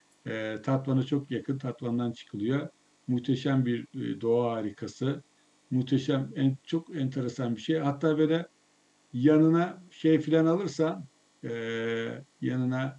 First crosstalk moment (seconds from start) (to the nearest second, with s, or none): none